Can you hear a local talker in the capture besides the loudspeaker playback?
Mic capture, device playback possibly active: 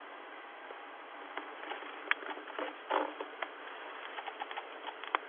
No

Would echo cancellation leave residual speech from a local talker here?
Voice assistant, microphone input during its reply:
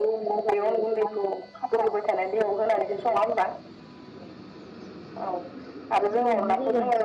Yes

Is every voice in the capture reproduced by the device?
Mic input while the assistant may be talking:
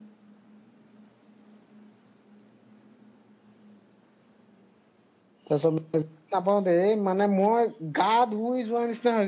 No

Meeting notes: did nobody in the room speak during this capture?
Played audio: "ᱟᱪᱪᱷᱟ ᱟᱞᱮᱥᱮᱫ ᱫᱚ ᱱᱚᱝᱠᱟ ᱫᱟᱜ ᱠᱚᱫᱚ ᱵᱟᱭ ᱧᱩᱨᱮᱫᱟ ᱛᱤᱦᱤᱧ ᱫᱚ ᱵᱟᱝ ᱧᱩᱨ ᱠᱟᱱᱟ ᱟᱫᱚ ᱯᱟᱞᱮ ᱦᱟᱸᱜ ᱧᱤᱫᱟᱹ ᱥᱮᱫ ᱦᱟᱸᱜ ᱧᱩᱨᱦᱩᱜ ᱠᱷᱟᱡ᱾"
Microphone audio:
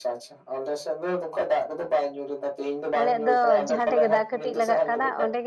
No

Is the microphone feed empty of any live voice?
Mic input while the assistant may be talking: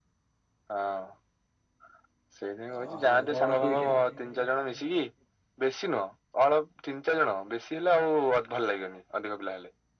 No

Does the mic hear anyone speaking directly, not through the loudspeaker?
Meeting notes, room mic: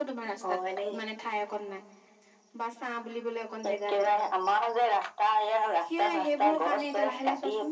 Yes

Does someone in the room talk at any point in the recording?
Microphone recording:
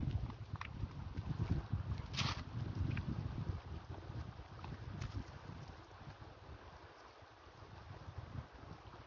No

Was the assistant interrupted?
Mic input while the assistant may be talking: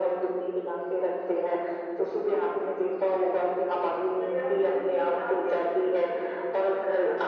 No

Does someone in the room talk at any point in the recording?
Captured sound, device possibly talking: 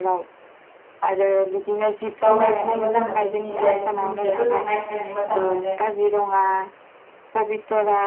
Yes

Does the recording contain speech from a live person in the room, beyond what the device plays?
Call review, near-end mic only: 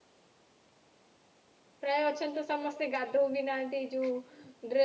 Yes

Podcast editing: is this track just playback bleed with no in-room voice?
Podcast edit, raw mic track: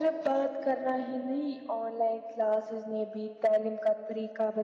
Yes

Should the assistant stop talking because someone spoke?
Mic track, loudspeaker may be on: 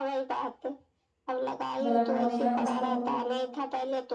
Yes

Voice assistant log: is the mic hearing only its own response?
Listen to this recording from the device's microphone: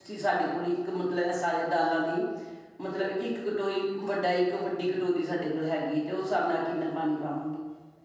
No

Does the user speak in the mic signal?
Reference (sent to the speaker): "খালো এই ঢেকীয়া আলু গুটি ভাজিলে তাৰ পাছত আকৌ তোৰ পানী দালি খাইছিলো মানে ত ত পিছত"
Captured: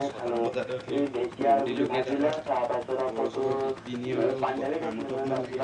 Yes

